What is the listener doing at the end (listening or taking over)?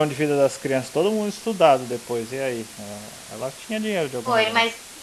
taking over